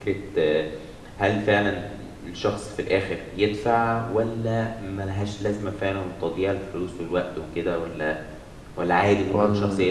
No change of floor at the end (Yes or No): No